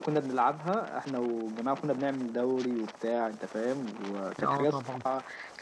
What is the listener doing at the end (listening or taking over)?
listening